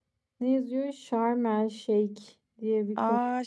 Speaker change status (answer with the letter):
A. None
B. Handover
B